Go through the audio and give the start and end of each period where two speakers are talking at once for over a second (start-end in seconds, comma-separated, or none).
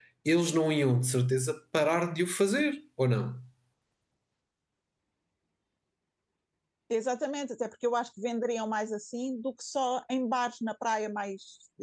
none